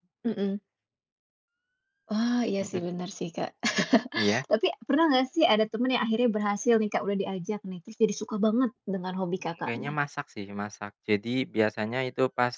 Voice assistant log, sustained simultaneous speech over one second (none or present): none